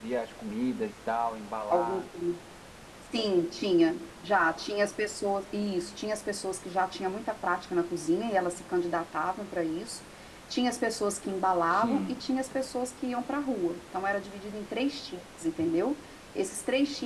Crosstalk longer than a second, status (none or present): none